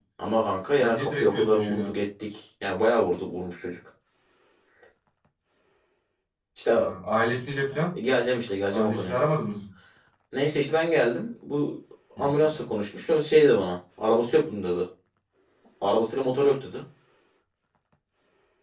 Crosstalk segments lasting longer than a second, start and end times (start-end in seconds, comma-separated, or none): 0.7-2.0